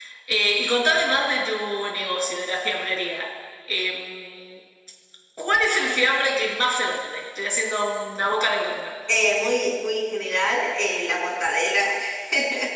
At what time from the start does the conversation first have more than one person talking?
none

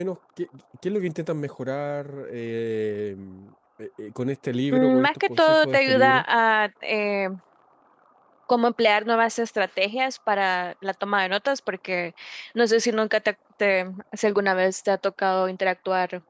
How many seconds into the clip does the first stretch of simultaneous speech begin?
4.7 s

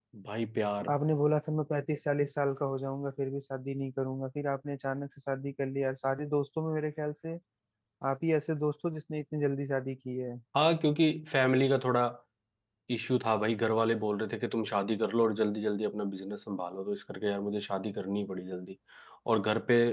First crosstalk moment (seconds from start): none

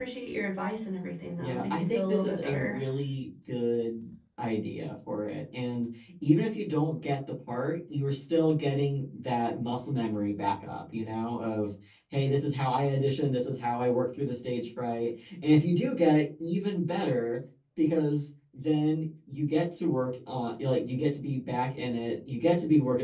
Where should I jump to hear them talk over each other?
1.4 s

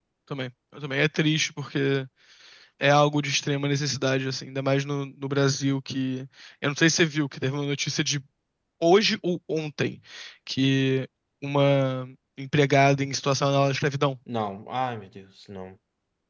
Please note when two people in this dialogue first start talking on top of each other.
none

